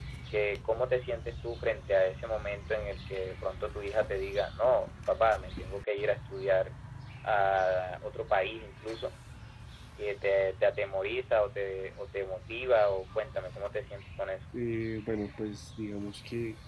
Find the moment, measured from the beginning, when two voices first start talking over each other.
none

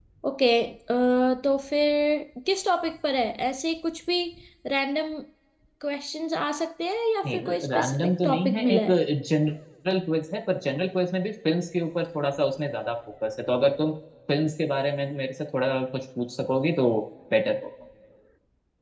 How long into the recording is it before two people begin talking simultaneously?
7.2 s

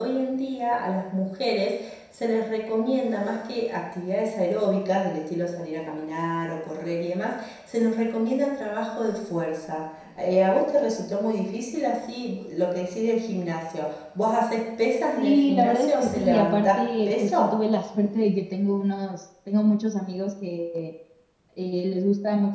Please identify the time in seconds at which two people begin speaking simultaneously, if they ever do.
15.2 s

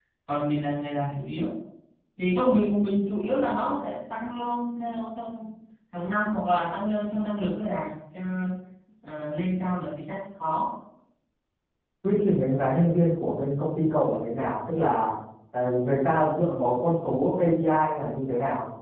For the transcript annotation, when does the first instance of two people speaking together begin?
none

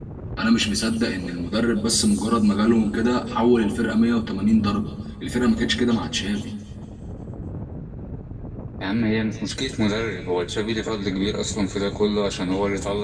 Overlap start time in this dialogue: none

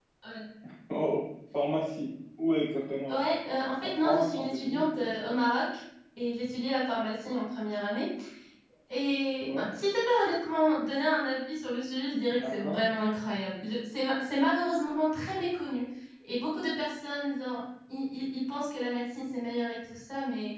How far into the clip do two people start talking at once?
3.8 s

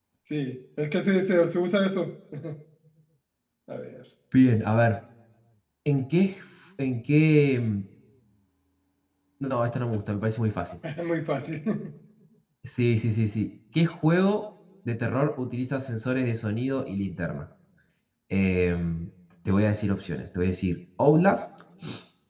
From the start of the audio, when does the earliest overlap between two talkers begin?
none

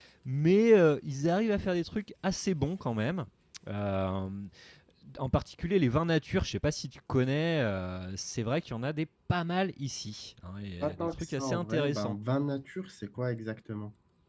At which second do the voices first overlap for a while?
10.8 s

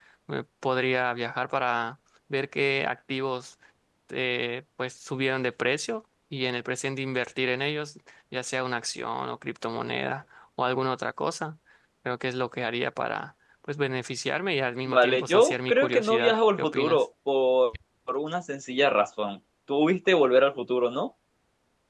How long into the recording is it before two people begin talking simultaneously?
14.9 s

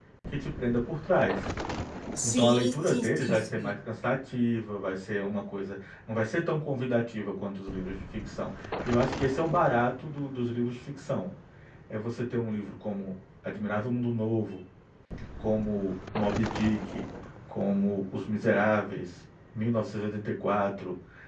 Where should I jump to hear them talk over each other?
2.2 s

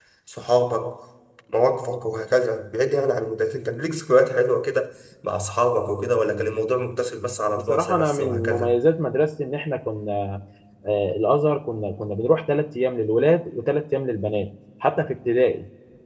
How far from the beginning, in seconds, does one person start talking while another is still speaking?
7.6 s

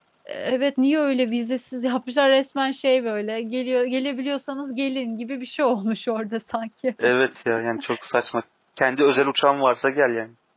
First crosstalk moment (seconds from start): none

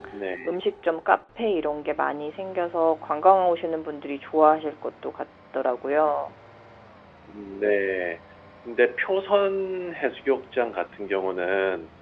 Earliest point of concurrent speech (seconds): none

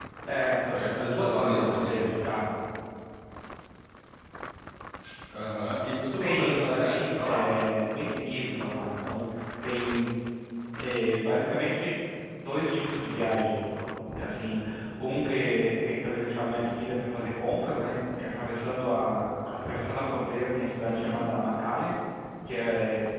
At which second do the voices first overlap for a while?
0.7 s

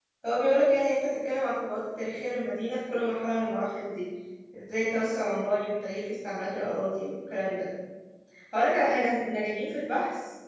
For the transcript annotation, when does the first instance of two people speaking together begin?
none

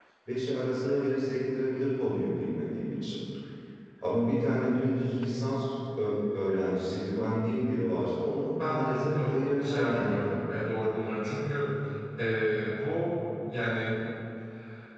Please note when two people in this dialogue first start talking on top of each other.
8.6 s

